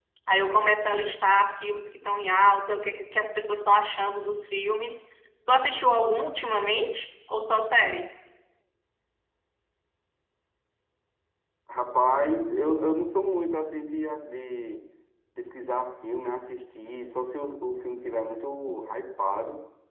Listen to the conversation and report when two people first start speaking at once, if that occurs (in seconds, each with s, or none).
none